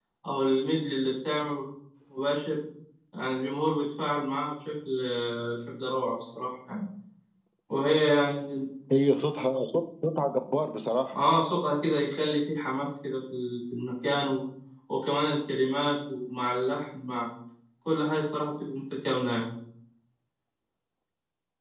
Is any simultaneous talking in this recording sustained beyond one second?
No

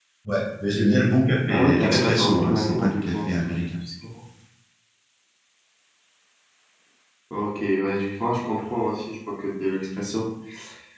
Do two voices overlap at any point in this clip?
Yes, from 1.4 s

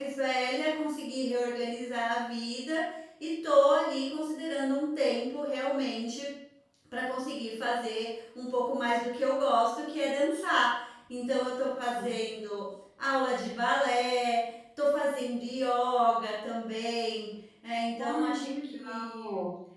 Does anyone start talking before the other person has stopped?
Yes, from 18.0 s

